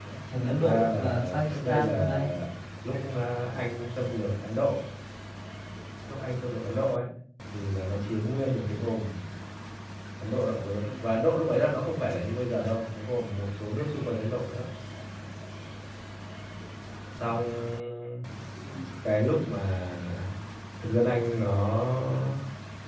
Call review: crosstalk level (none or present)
present